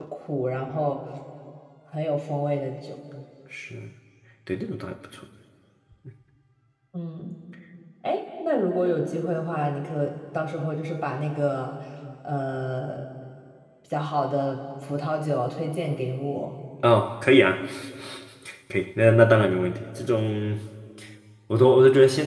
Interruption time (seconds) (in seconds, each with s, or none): none